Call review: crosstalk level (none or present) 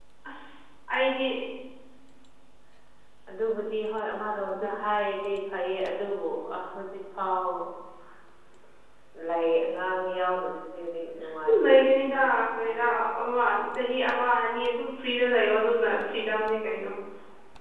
present